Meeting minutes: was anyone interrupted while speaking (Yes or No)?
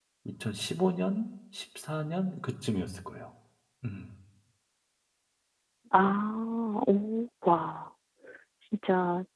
No